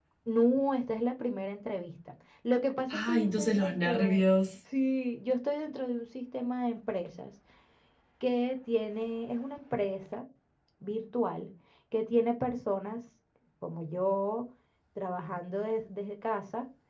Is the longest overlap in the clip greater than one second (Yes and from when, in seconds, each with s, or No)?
Yes, from 2.9 s